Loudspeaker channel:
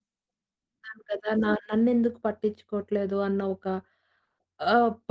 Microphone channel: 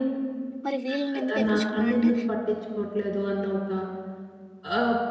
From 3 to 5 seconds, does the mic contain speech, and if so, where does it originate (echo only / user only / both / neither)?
echo only